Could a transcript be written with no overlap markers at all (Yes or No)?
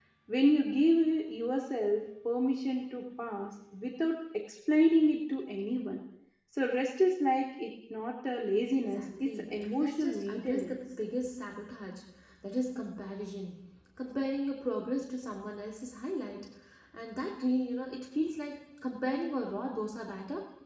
No